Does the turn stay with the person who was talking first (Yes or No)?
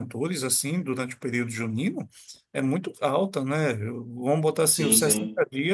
Yes